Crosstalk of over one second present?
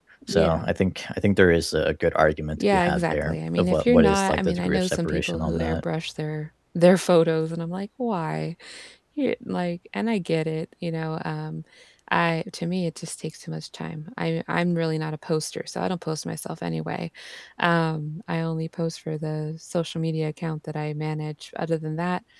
Yes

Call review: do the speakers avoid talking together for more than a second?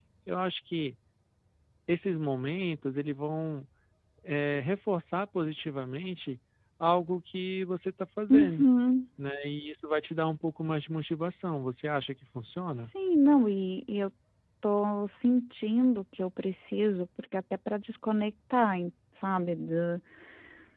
Yes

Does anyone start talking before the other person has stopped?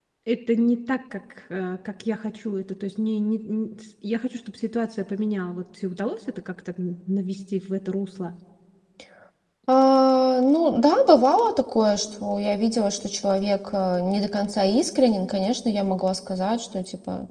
No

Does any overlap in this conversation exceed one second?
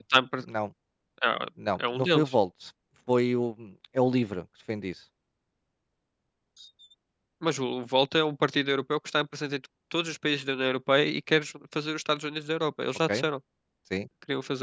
No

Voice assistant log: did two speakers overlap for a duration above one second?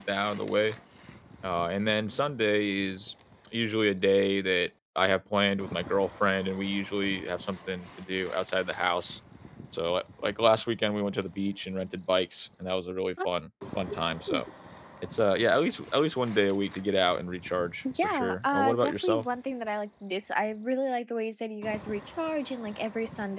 Yes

